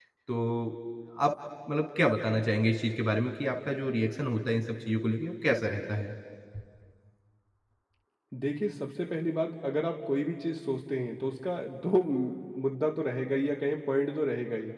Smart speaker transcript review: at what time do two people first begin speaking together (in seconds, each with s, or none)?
none